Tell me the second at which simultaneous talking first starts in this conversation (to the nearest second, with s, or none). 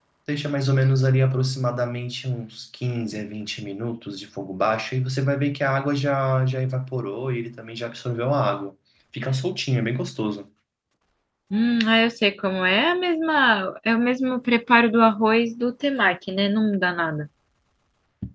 none